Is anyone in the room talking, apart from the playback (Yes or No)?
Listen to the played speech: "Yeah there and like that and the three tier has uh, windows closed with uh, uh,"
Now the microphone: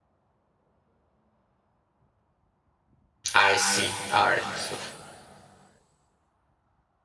Yes